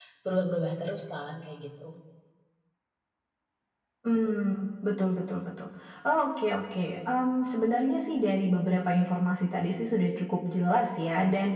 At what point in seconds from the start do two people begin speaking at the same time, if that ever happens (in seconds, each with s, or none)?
none